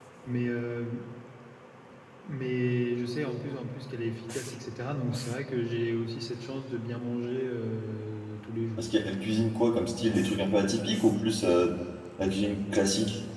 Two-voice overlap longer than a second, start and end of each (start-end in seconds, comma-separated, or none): none